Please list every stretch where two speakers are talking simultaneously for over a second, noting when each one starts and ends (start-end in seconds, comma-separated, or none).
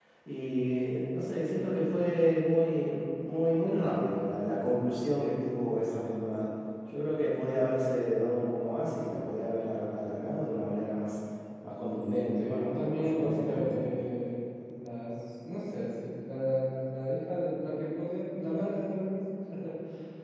12.4-13.8